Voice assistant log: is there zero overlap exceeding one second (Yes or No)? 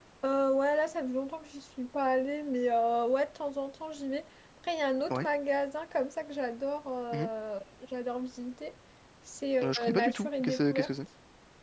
No